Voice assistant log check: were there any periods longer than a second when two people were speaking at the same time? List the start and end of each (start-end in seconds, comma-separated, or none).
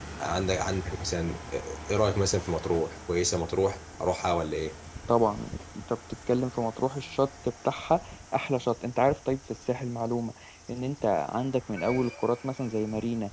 none